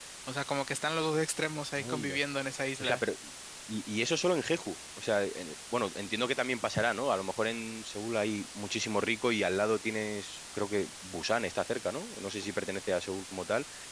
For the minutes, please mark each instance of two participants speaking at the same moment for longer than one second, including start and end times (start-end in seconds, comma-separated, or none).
none